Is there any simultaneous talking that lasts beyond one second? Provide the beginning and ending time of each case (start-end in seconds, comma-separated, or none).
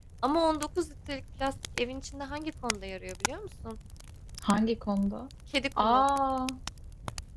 none